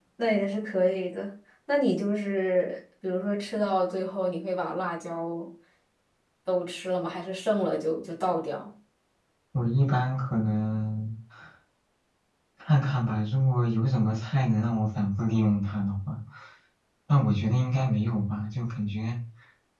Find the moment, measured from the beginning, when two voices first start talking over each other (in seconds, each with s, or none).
none